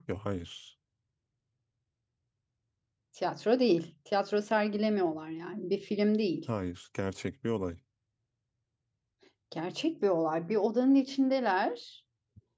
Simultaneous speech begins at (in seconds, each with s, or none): none